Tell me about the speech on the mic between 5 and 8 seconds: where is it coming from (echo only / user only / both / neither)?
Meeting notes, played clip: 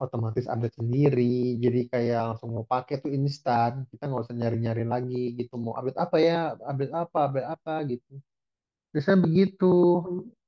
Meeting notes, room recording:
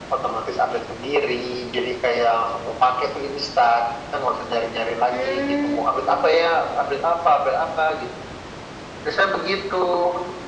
both